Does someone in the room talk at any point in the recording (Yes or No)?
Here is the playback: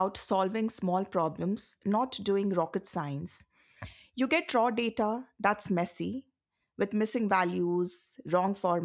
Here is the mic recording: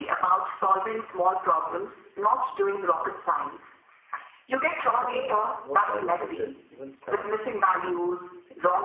Yes